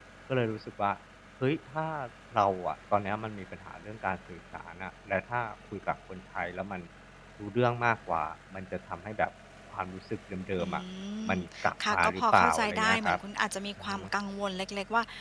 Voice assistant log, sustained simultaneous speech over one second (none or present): present